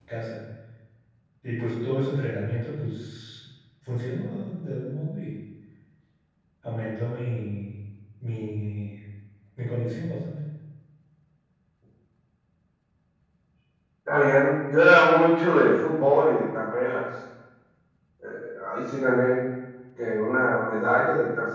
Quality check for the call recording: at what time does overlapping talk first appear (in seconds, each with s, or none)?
none